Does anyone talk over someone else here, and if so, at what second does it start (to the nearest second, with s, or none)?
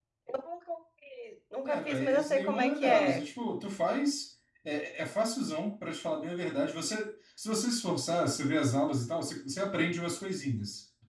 2 s